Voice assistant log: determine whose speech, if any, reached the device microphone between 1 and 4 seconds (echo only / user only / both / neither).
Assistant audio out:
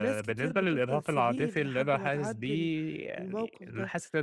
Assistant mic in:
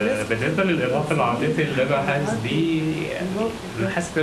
echo only